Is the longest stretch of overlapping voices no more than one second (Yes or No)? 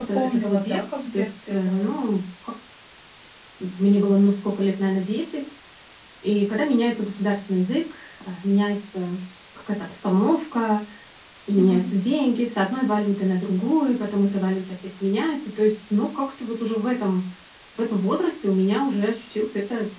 No